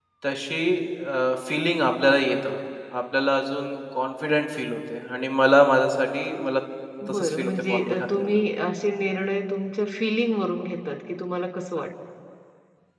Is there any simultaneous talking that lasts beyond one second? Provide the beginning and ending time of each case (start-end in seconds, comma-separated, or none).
7.1-8.4